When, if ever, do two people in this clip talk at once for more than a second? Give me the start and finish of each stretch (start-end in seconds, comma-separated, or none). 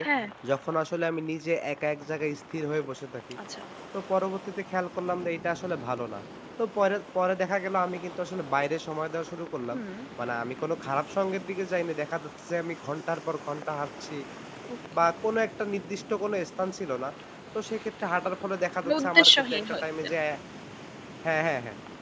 18.8-20.1